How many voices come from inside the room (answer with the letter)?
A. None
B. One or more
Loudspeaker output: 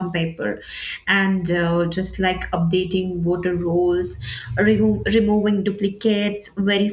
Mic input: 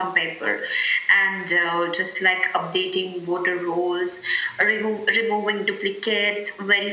A